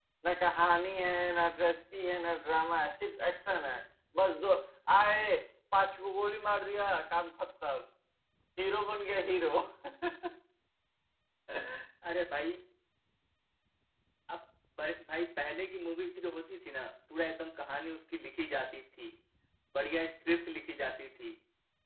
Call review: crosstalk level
none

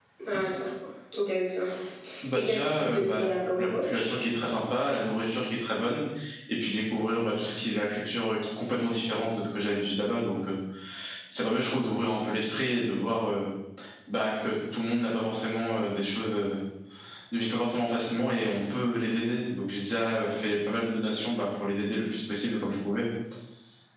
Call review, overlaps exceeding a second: present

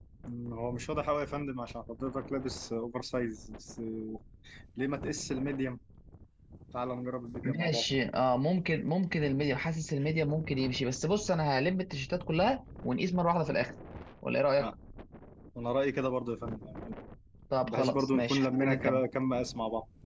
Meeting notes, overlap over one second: present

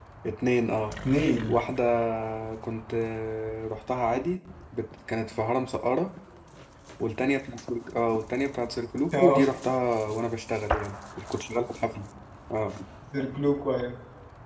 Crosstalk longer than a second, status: none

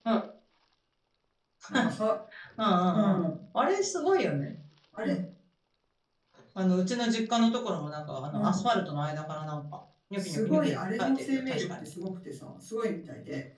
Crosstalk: present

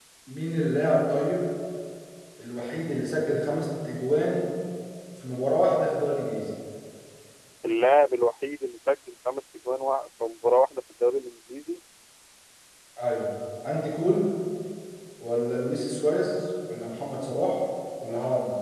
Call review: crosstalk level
none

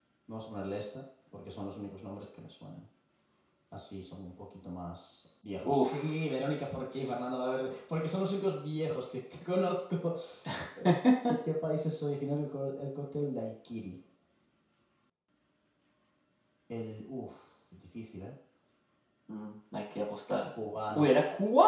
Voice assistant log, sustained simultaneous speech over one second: none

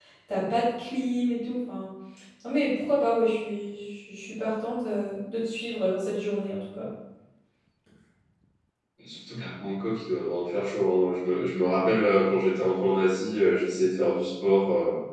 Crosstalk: none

